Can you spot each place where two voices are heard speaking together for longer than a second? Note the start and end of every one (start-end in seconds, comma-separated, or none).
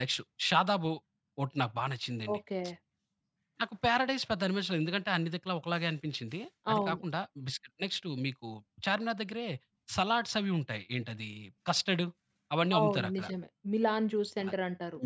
none